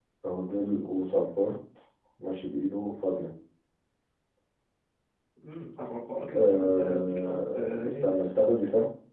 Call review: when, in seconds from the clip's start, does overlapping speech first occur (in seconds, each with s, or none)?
6.3 s